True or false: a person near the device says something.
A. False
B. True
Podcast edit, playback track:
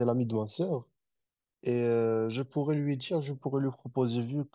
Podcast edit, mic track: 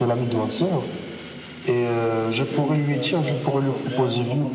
B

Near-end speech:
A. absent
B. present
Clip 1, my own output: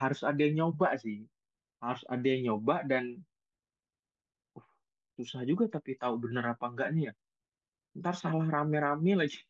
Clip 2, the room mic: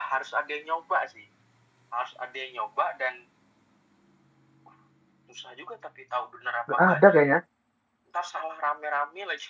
B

